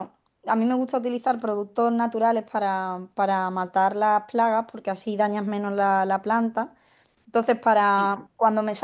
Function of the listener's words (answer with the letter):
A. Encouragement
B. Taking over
A